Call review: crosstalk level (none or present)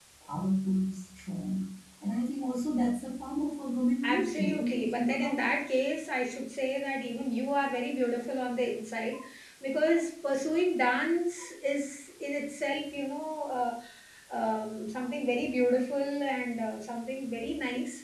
present